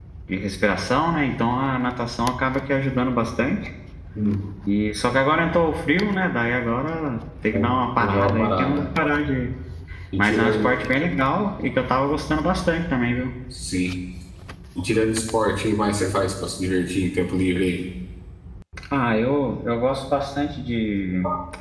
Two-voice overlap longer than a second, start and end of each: 7.5-8.9

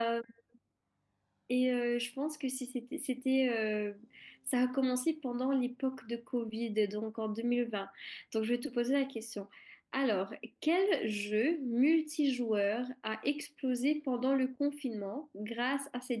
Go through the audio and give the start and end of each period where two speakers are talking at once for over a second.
none

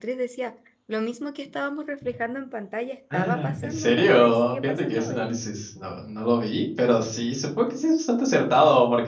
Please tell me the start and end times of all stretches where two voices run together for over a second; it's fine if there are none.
3.1-5.2

